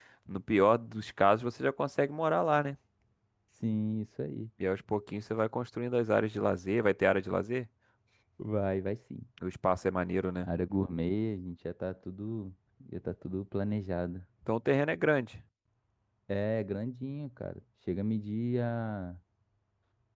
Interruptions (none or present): none